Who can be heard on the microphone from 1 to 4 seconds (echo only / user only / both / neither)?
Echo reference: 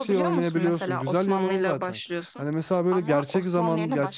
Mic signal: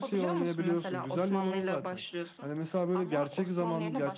echo only